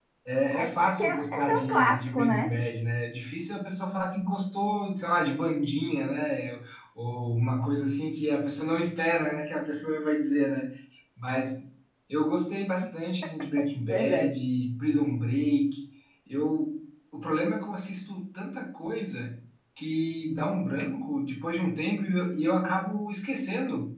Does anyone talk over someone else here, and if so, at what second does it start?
1 s

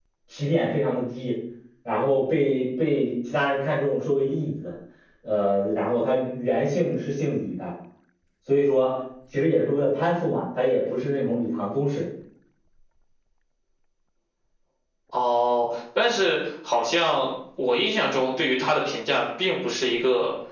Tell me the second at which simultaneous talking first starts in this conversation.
none

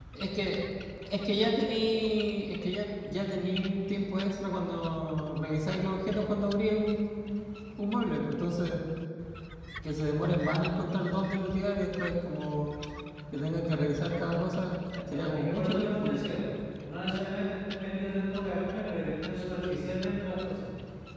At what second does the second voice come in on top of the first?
15 s

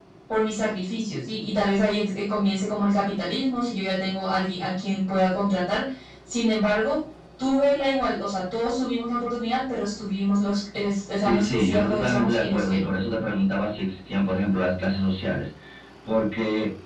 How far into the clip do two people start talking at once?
11 s

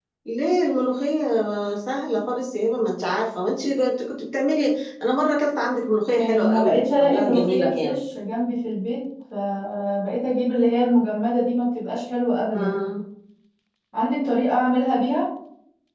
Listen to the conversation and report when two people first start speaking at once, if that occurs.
6 s

